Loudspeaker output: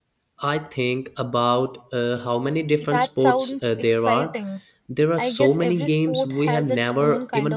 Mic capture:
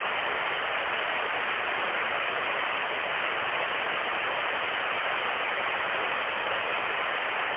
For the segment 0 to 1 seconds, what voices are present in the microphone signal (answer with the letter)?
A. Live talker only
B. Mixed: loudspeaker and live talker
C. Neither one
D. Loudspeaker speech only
C